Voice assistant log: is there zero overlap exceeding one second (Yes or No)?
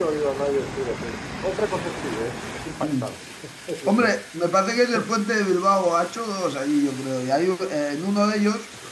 Yes